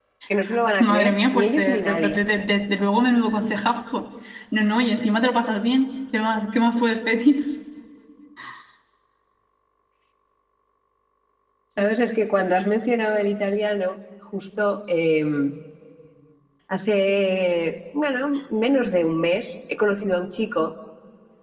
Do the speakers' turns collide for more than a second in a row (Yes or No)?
Yes